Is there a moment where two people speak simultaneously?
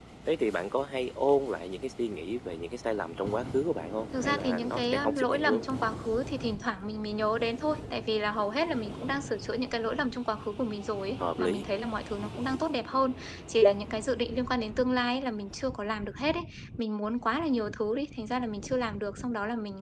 Yes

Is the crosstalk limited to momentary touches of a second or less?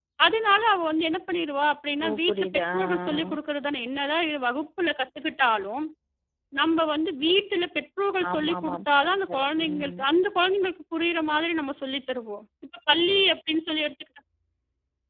No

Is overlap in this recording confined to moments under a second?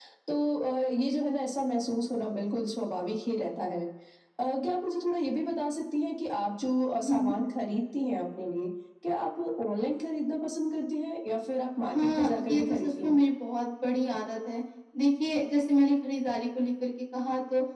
No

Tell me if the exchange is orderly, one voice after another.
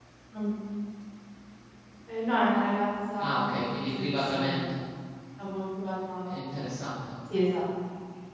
No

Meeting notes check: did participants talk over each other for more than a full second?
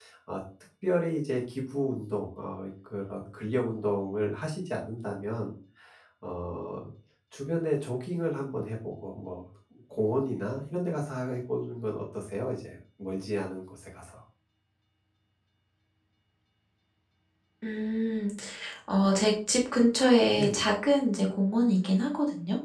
No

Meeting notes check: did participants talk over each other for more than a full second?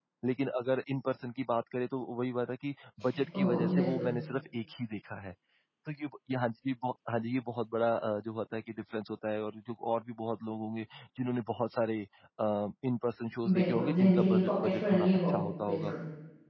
Yes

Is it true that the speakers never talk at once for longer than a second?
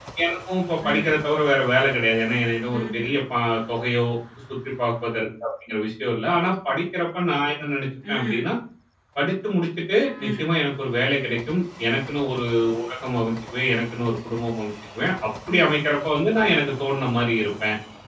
Yes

